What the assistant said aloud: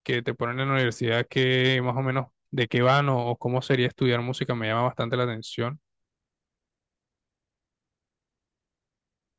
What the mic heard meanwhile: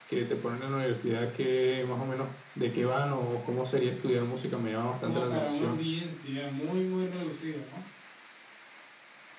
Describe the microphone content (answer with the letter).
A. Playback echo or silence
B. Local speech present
B